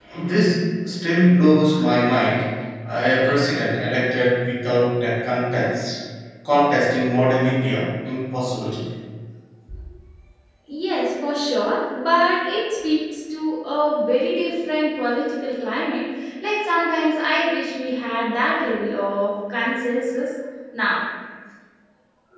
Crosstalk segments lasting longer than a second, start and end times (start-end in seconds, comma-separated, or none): none